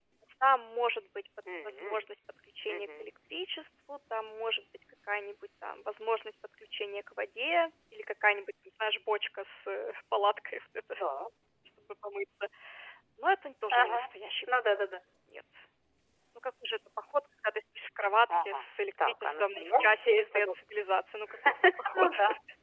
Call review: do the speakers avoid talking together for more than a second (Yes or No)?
No